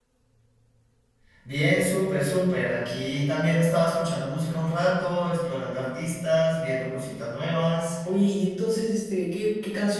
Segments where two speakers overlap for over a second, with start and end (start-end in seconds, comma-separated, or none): none